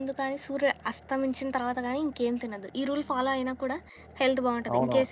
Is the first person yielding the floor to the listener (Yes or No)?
Yes